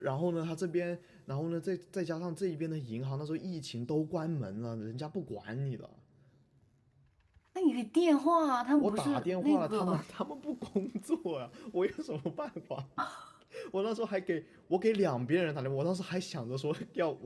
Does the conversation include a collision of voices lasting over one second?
Yes, from 8.8 s

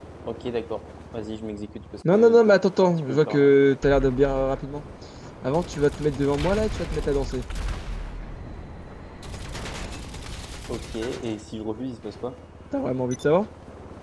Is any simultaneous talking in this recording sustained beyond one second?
Yes, from 2.0 s

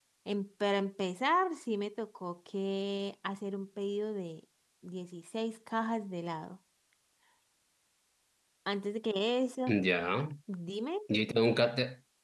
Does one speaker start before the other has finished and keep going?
No

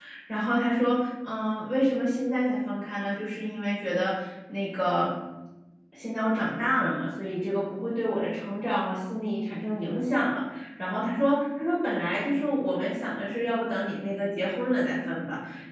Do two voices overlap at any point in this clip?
No

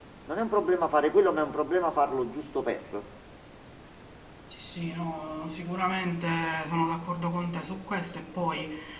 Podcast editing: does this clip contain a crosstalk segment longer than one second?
No

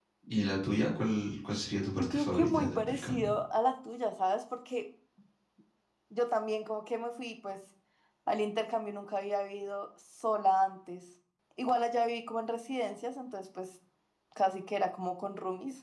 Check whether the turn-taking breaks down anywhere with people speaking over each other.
Yes, from 2.0 s

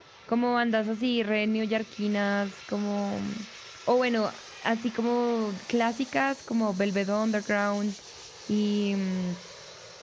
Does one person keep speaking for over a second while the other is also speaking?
No

